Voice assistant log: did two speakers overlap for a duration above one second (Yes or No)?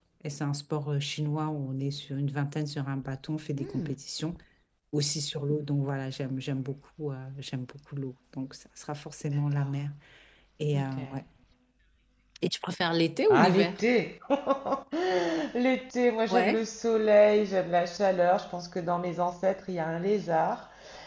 No